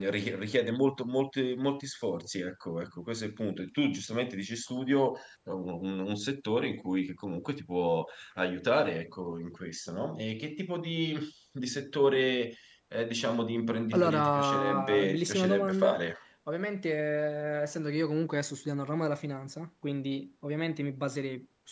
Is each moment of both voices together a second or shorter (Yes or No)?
No